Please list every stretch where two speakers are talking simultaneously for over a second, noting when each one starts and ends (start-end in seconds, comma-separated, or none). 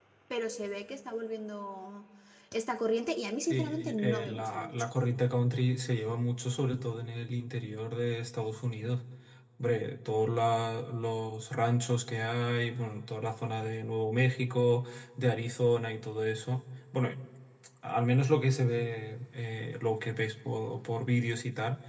3.5-4.9